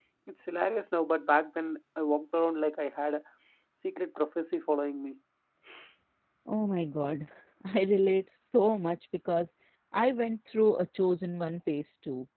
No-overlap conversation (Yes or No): Yes